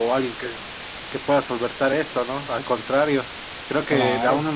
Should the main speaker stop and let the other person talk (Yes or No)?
No